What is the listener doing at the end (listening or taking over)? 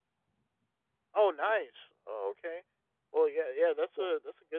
listening